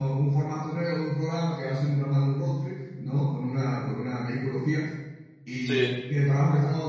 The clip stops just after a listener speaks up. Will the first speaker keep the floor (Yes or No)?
Yes